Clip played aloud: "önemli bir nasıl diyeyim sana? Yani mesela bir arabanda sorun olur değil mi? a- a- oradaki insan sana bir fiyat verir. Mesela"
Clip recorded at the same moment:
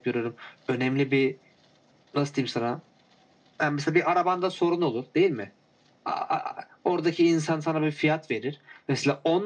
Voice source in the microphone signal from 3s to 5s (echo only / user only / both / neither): echo only